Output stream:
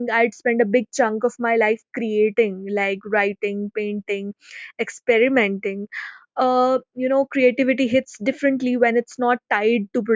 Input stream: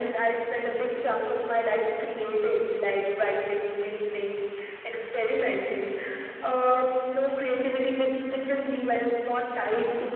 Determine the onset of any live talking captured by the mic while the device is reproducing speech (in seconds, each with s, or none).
none